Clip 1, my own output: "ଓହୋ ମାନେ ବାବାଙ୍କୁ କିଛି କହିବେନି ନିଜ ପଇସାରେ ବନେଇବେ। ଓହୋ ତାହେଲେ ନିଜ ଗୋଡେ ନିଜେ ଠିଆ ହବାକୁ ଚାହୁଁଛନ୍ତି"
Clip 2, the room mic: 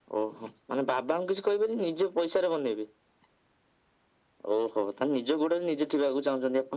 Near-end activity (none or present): none